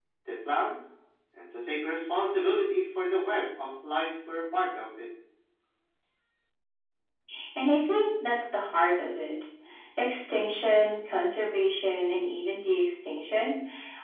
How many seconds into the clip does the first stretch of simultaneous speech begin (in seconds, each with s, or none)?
none